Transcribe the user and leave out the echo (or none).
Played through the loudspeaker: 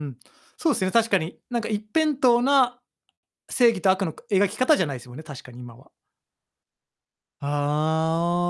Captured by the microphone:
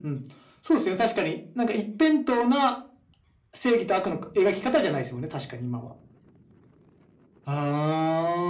none